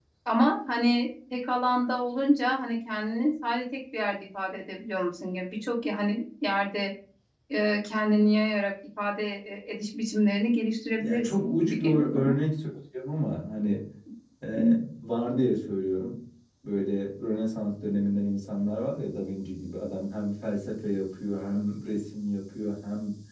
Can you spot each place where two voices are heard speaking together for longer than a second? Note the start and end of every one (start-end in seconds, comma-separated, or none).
11.0-12.4